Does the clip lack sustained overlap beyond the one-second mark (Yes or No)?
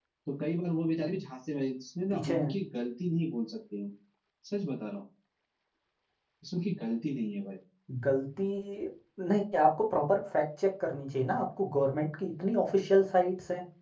Yes